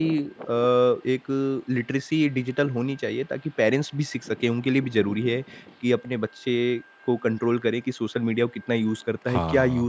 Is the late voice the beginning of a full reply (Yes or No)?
No